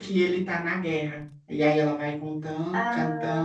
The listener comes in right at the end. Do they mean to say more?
No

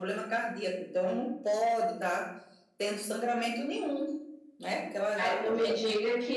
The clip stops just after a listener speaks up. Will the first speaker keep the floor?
No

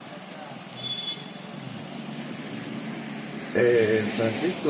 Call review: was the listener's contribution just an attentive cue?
No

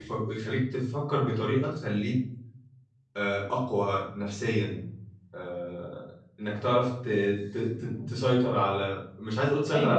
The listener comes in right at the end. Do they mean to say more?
Yes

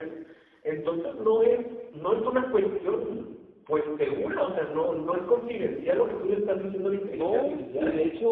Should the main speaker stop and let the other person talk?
Yes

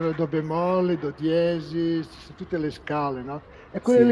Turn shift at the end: No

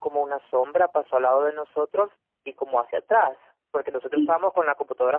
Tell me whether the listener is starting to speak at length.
No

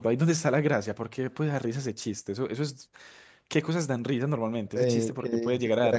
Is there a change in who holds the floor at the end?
Yes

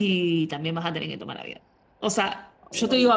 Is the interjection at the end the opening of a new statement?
No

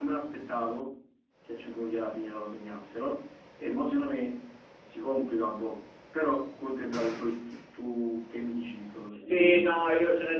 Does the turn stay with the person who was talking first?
No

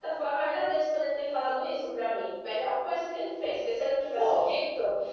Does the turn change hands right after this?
No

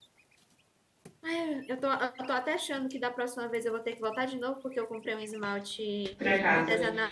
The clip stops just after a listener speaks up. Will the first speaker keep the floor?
Yes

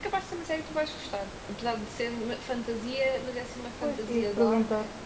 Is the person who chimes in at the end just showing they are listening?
No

